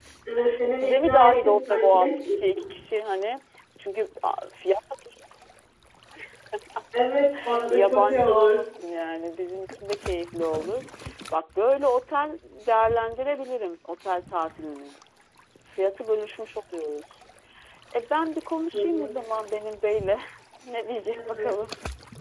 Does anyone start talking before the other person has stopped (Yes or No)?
Yes